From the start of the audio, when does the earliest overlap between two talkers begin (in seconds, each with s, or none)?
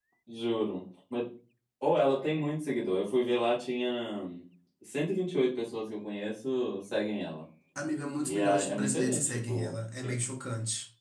8.2 s